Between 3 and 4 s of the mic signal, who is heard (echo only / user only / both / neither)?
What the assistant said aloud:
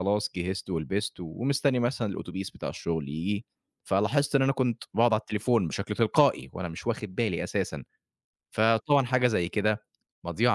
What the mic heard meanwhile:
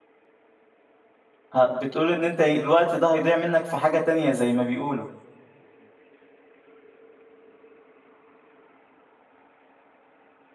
user only